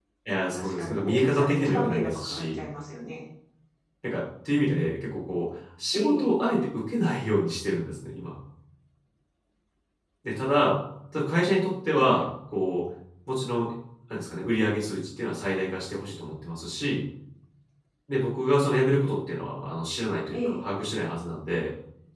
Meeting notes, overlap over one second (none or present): present